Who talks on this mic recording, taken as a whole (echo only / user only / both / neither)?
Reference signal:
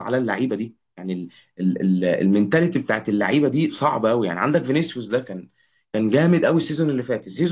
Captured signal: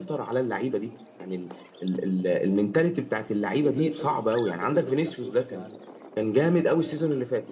both